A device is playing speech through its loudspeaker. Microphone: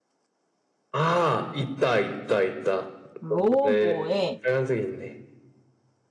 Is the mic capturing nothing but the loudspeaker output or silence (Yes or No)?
No